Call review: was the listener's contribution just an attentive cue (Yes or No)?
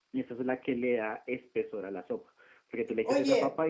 No